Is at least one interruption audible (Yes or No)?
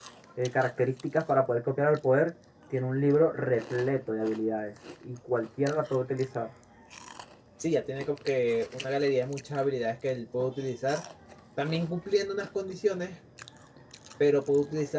No